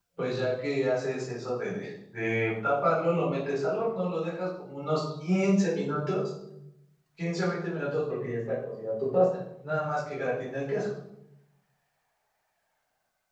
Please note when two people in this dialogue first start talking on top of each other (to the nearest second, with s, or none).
none